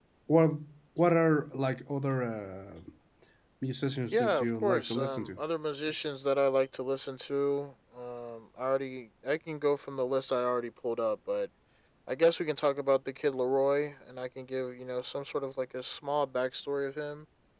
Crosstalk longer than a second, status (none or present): present